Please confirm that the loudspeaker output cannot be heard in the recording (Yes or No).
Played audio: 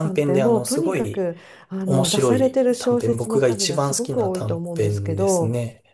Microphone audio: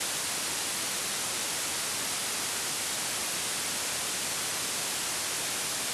Yes